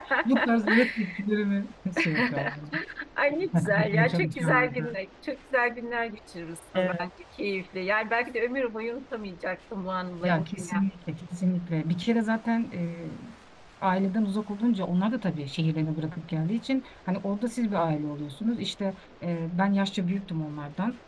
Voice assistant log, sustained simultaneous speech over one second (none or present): present